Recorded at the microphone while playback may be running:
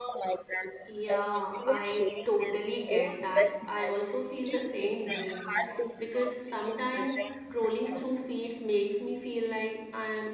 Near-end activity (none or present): present